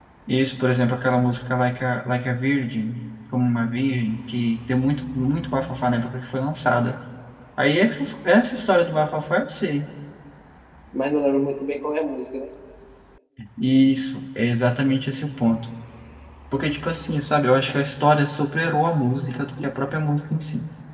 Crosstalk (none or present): none